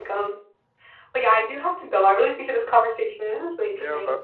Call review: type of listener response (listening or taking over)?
taking over